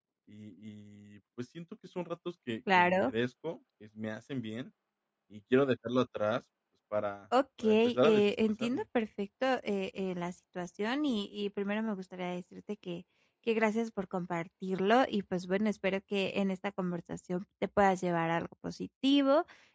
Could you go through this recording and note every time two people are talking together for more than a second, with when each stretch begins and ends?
7.6-8.8

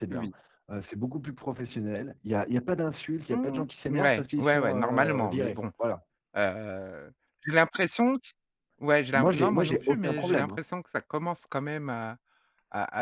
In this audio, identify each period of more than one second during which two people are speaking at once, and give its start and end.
3.9-5.6, 9.1-10.6

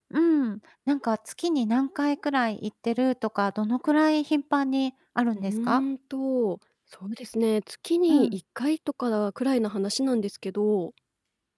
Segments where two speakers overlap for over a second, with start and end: none

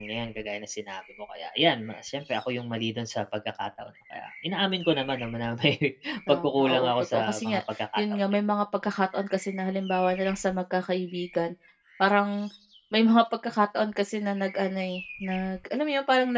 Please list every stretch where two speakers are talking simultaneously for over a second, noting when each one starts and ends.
6.3-8.2

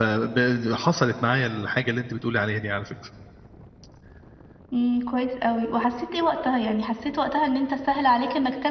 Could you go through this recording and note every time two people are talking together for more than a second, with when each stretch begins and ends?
none

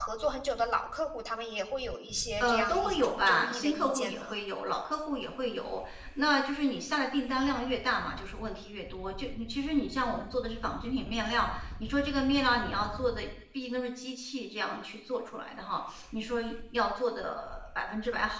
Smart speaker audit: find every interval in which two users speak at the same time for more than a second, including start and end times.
2.4-4.3

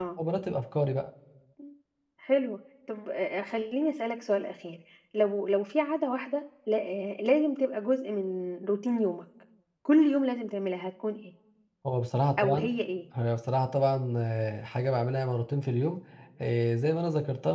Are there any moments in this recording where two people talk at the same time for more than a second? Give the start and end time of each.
none

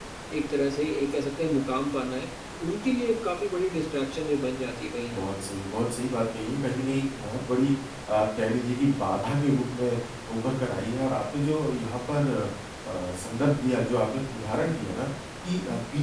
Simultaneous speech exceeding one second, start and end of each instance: none

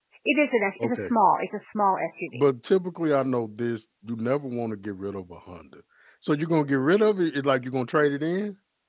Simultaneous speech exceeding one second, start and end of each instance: none

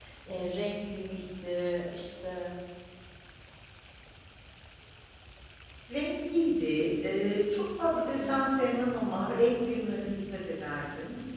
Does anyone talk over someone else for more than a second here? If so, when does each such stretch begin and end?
none

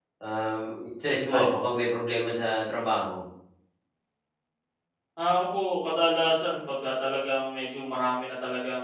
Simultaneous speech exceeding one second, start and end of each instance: none

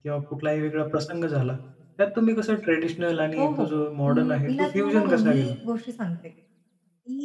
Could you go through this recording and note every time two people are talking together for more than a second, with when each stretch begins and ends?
4.1-5.5

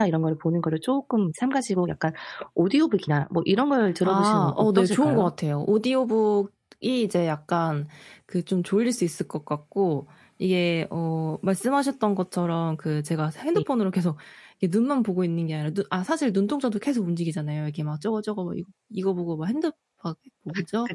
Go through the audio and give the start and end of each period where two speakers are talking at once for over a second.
4.0-5.3

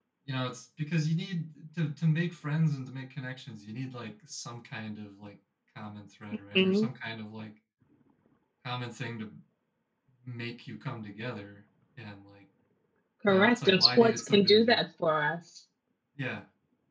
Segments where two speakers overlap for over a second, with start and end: 13.3-14.8

